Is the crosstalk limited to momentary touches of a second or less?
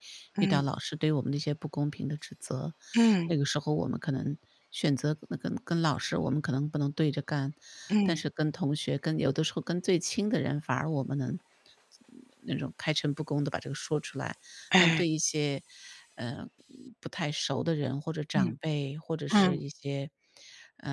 Yes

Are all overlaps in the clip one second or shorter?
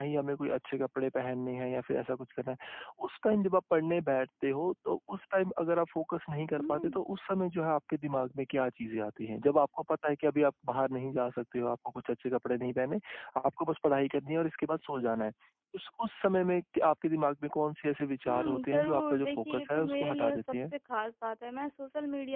No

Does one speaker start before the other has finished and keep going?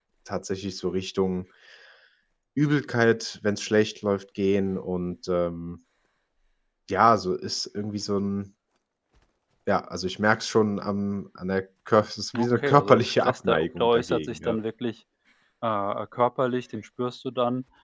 Yes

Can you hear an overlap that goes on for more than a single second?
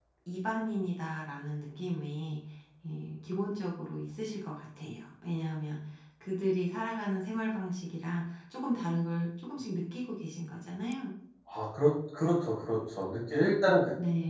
No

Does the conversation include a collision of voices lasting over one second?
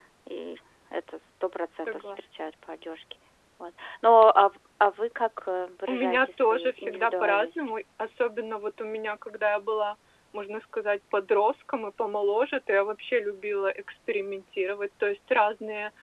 Yes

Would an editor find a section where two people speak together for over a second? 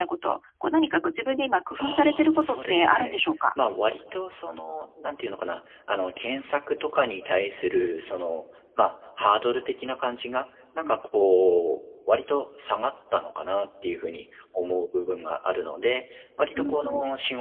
Yes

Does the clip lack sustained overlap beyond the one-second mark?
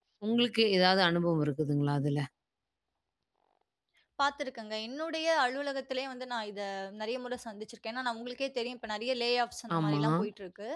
Yes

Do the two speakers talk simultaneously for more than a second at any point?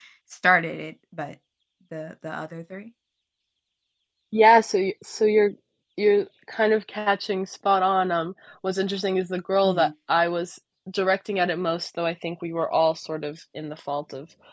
No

